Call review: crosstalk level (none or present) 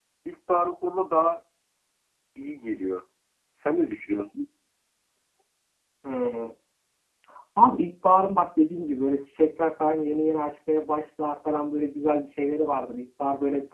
none